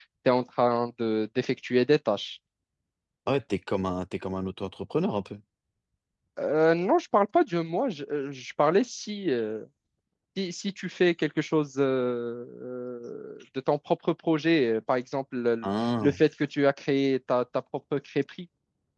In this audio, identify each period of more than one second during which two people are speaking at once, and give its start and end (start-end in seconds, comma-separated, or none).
none